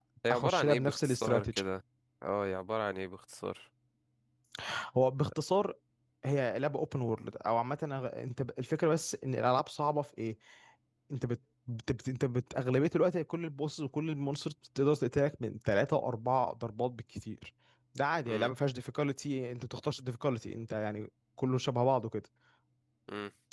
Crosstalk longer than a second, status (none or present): present